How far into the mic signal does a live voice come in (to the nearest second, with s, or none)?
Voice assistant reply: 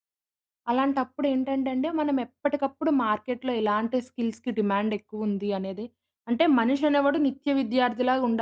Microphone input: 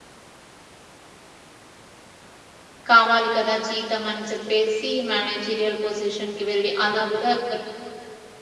3 s